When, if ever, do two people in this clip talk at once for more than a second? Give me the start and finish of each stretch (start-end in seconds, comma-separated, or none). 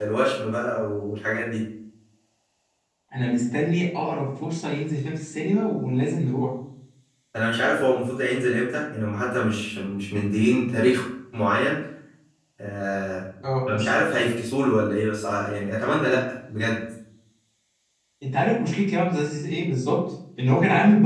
none